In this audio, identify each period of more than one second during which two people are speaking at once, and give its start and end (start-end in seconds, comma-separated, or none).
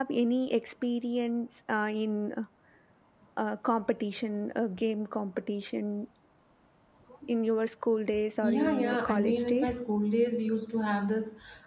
8.4-9.7